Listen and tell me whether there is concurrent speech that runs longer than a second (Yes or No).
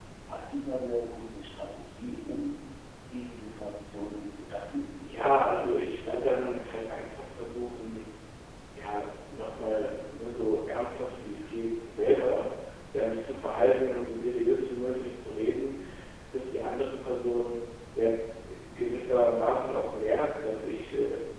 Yes